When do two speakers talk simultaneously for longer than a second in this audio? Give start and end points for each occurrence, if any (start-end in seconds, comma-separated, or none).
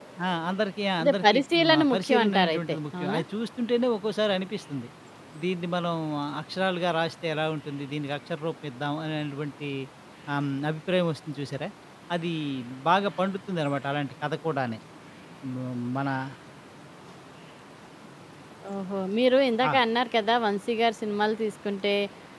1.0-3.2